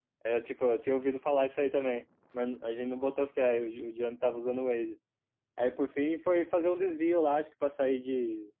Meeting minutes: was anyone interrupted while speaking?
No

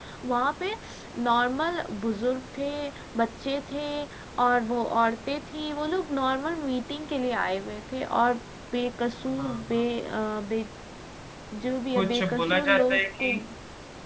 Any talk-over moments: Yes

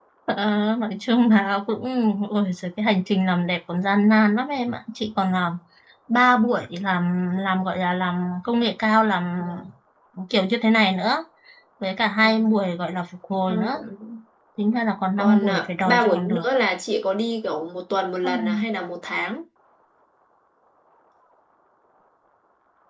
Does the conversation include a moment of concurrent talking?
Yes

